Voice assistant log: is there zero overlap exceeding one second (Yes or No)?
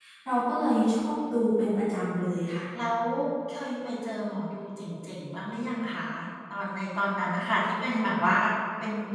Yes